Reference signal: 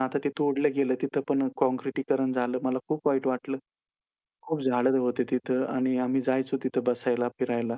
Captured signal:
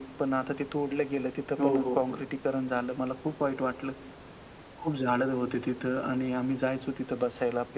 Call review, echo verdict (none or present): present